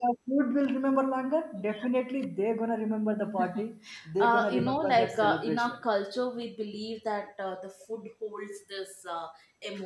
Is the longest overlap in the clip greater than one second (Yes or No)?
Yes